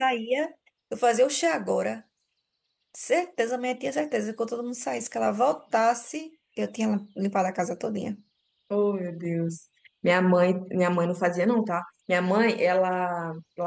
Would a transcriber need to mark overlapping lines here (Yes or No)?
No